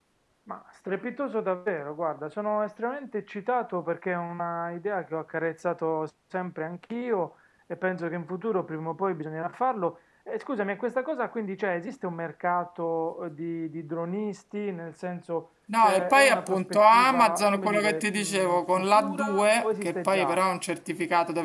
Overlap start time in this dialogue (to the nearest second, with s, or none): 16 s